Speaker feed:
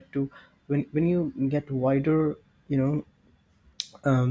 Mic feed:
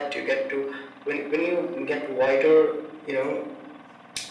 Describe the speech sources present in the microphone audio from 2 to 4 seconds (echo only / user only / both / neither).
echo only